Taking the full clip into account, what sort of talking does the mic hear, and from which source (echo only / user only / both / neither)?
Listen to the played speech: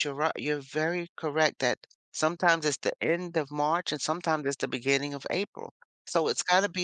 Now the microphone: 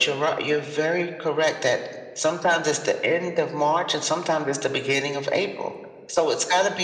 echo only